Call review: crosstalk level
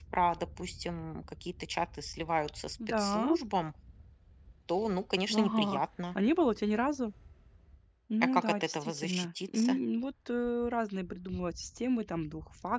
present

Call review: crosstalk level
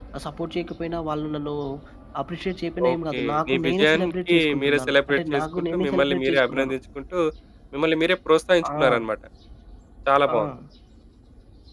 present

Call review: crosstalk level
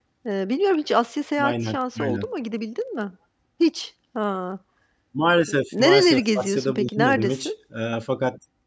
present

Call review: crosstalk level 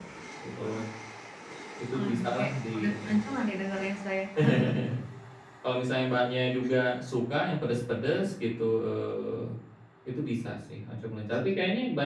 present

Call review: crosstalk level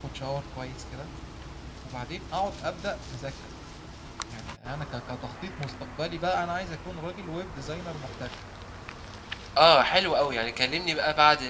none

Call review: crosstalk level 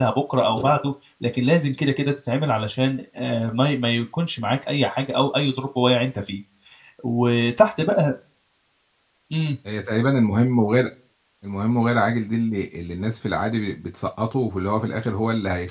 none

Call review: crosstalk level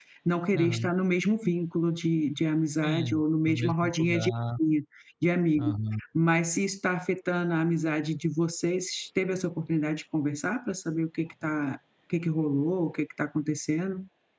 present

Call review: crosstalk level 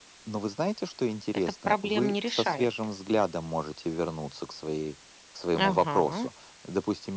present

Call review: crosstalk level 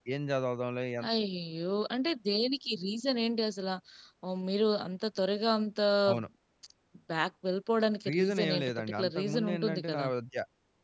present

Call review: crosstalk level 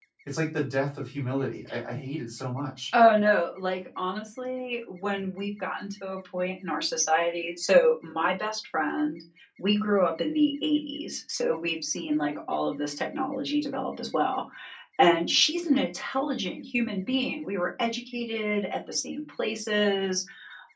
none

